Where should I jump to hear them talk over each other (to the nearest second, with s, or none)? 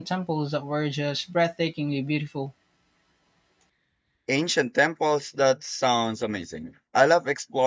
none